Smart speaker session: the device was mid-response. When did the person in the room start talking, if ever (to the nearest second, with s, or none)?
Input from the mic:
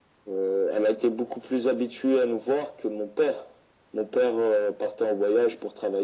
none